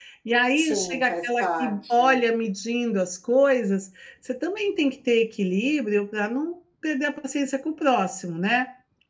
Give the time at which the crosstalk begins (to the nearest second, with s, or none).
1 s